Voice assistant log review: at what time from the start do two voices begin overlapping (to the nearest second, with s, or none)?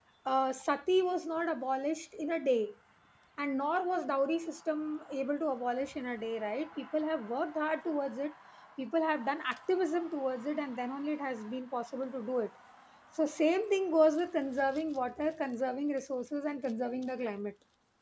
none